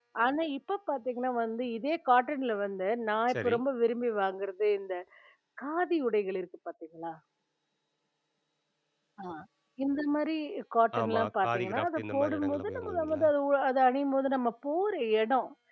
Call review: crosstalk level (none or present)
present